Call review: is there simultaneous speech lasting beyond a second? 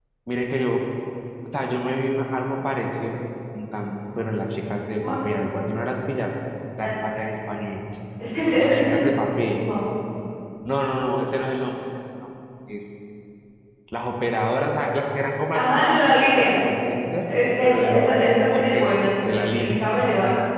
Yes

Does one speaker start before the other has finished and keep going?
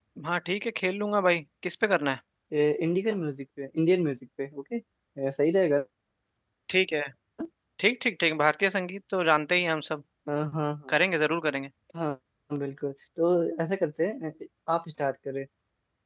No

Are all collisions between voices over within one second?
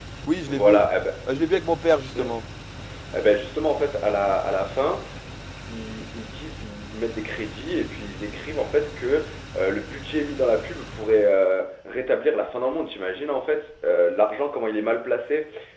Yes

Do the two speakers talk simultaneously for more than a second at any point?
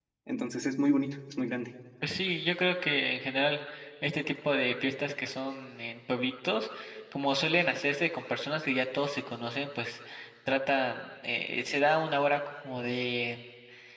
No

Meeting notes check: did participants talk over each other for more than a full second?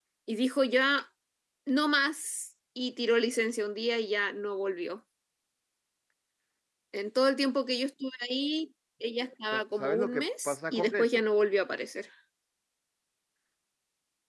Yes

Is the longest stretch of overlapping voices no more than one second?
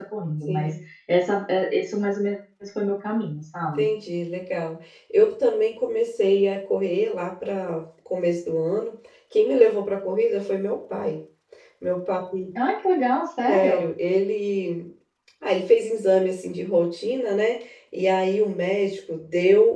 Yes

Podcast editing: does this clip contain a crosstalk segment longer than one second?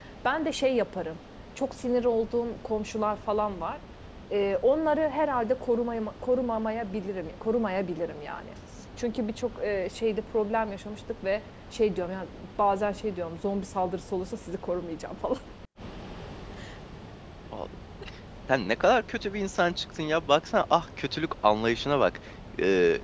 No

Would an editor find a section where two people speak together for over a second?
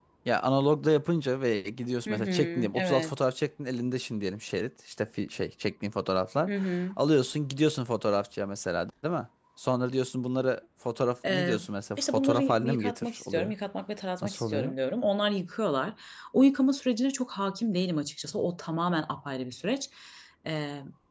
Yes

